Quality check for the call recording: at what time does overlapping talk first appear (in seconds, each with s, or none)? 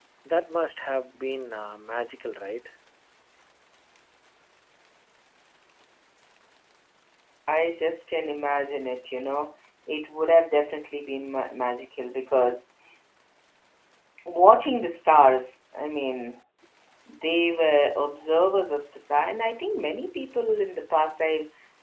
none